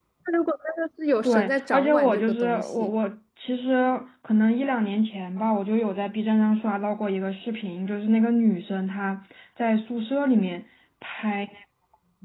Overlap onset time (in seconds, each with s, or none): 1.2 s